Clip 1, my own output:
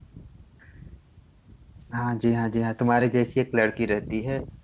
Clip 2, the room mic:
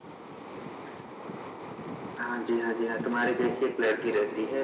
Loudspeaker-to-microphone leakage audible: Yes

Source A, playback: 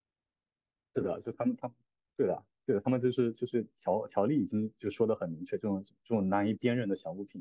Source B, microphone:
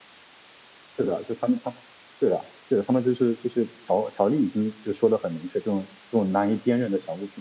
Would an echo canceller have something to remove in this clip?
Yes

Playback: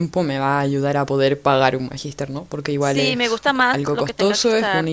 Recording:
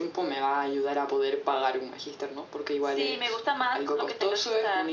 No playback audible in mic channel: No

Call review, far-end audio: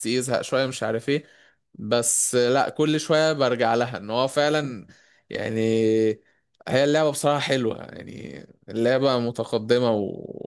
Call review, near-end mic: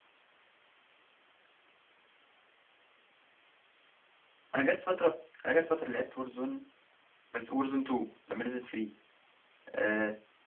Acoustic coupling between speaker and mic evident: No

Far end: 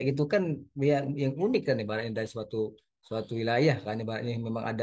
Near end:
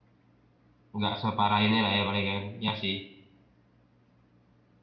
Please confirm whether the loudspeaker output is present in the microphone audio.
No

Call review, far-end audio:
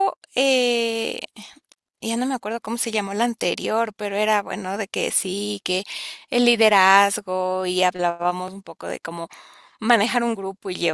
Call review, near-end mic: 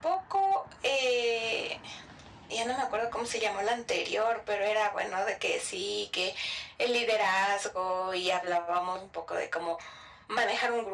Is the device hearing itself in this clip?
Yes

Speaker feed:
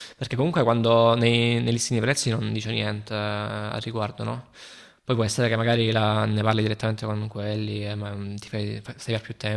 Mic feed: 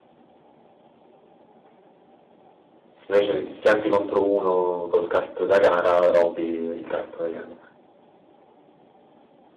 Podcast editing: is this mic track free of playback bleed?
Yes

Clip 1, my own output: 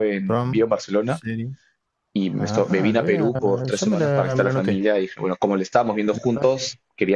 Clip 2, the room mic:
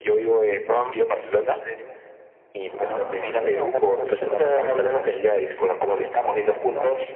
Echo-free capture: No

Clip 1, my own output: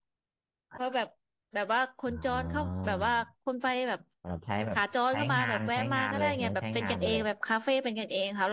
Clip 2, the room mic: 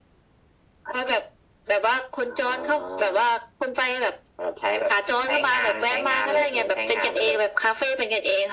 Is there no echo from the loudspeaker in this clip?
No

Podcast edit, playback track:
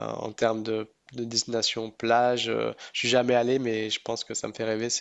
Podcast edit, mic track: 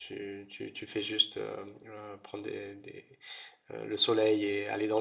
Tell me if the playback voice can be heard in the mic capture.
No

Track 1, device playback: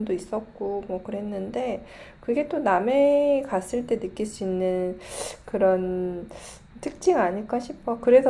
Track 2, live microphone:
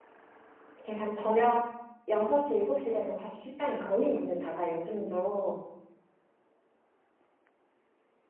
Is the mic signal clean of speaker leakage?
Yes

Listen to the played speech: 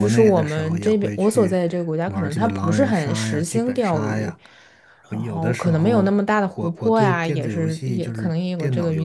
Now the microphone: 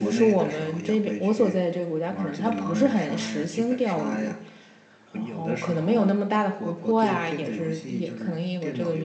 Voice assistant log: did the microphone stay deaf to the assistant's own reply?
No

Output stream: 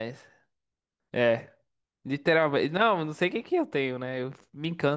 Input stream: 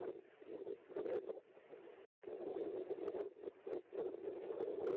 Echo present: No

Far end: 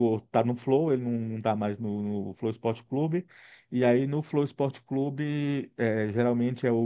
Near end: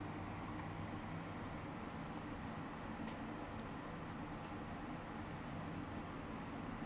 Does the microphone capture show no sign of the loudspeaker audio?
Yes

